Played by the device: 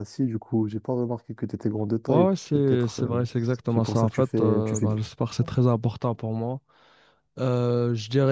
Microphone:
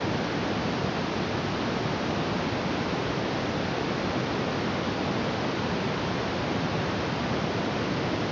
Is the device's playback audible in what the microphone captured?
No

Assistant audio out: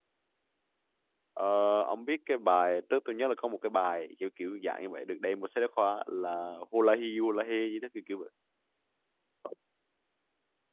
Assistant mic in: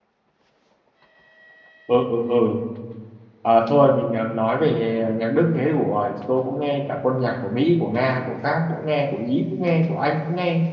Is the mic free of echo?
Yes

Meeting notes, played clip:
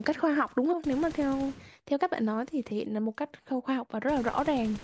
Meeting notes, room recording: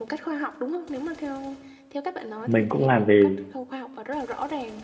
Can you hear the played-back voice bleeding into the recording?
Yes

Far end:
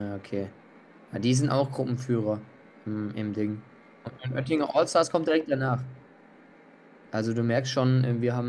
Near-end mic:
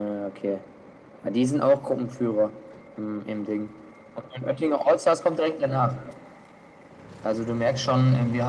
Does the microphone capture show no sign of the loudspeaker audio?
No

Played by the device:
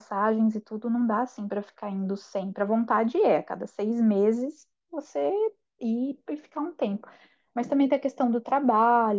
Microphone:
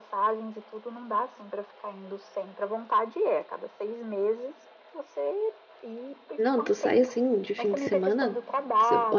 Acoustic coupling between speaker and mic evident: Yes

